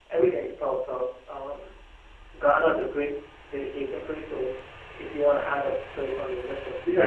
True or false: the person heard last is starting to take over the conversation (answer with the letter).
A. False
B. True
B